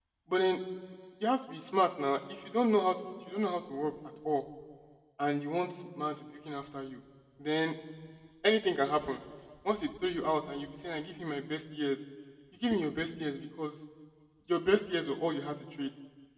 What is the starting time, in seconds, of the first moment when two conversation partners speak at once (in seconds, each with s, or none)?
none